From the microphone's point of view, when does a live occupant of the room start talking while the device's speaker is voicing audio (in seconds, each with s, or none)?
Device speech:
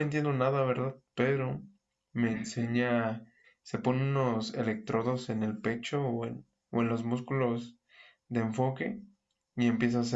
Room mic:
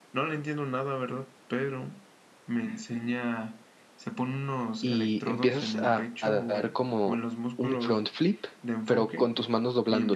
4.8 s